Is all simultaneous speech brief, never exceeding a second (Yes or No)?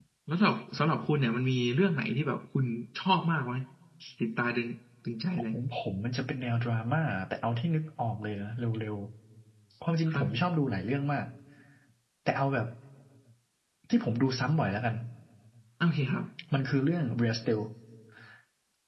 Yes